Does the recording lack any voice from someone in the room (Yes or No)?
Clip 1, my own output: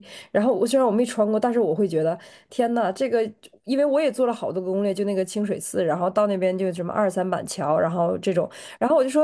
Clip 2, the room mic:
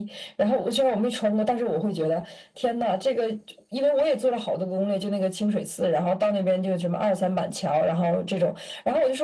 Yes